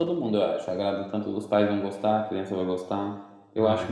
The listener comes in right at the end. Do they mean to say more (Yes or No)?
No